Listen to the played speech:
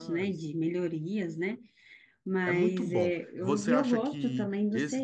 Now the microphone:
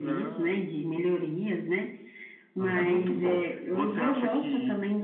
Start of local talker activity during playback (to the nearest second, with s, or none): 3 s